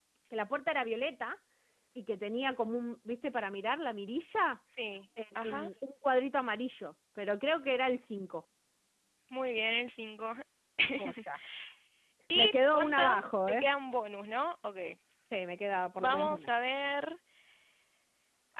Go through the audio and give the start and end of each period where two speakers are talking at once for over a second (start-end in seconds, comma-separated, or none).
12.3-13.7